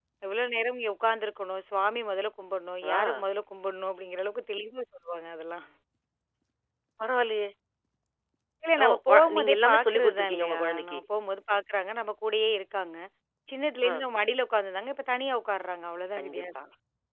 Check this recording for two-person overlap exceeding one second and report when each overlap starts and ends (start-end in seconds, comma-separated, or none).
8.8-11.0